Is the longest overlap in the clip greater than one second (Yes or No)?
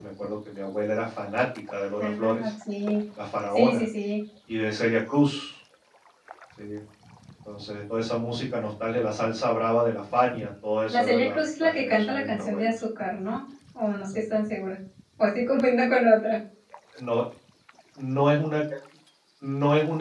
Yes